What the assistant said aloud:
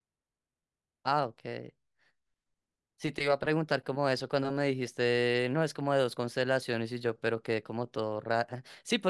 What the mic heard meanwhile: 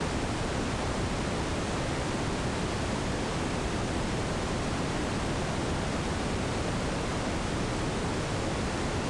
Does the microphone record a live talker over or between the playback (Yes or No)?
No